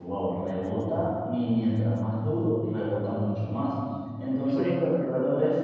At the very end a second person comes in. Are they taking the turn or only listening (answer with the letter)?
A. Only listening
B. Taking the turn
A